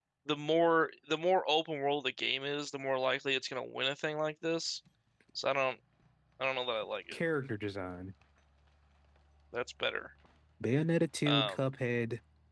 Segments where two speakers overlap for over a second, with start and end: none

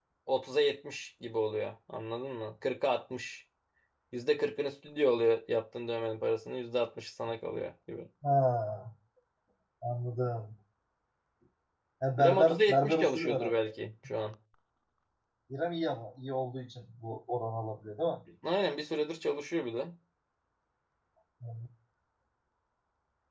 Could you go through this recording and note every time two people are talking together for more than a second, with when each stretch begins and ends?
12.2-13.5

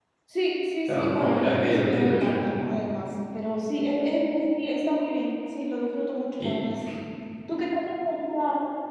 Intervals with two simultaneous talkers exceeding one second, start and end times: 0.9-2.4

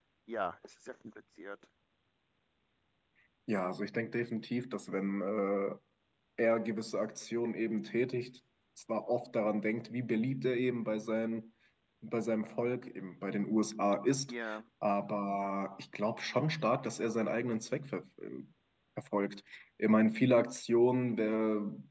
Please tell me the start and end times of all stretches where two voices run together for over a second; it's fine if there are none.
none

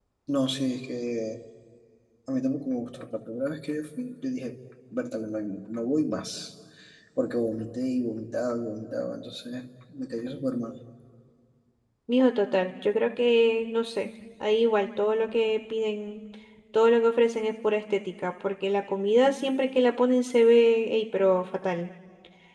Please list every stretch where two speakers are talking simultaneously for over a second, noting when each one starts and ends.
none

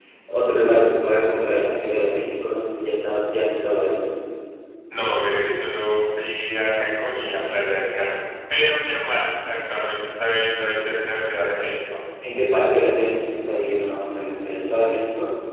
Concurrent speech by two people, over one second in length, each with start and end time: none

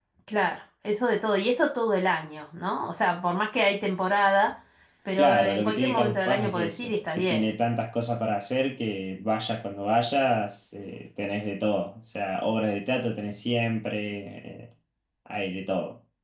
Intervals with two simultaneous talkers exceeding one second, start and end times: 5.2-7.5

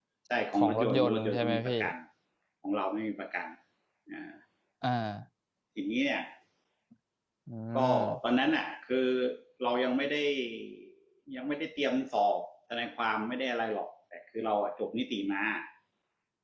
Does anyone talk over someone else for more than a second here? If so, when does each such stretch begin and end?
0.5-1.8

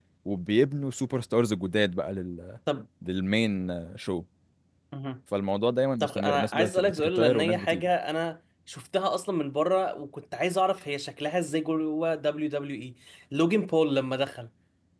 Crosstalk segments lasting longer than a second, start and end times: 6.0-7.9

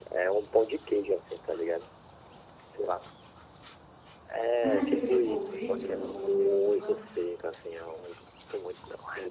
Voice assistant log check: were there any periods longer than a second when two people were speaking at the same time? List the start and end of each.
4.6-7.0

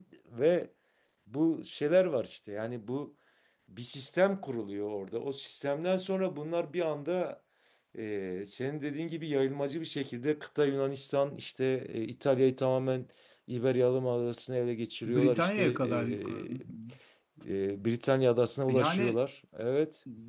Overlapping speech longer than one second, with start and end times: 15.0-16.5

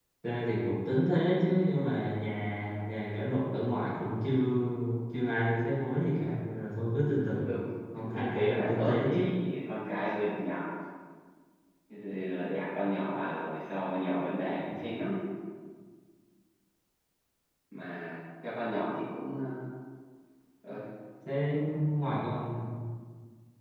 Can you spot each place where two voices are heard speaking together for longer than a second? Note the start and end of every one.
8.0-9.3

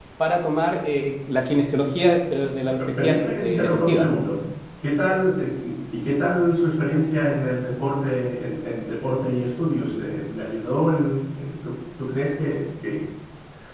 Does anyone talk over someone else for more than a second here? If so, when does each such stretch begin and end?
2.8-4.1

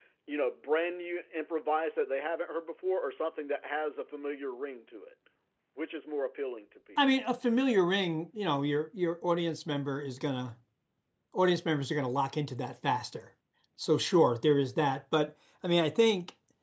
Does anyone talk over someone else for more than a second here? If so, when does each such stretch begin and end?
none

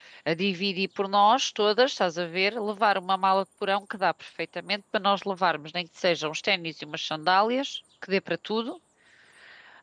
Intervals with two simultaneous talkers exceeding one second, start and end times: none

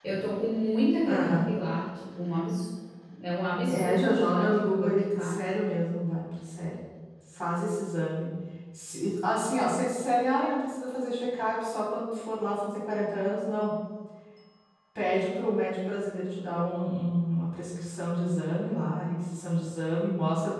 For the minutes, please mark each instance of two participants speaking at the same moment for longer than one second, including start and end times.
3.6-5.3

